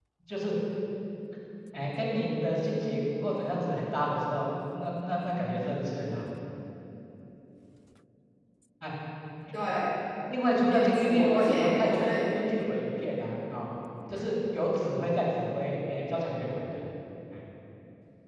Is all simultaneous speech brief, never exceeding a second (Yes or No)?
No